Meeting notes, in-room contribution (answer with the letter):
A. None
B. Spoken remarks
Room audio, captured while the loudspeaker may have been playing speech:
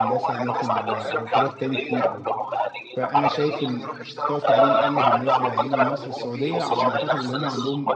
B